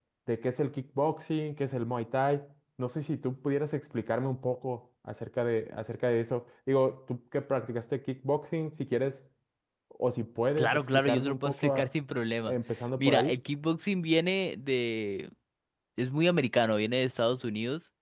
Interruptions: present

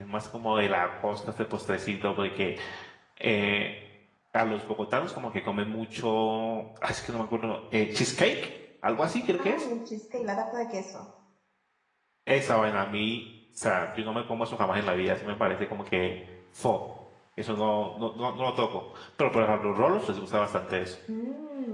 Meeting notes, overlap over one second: none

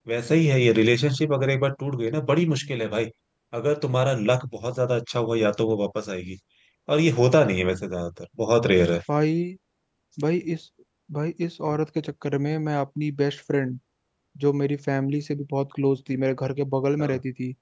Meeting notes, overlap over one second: none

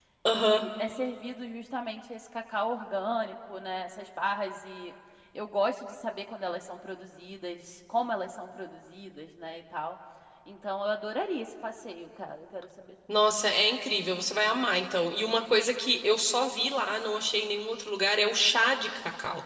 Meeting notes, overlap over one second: none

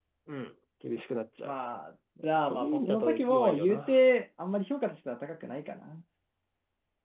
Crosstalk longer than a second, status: present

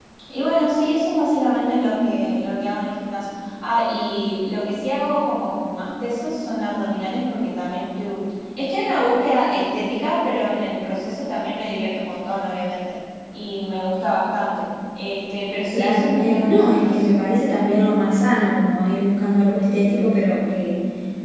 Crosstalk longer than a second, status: present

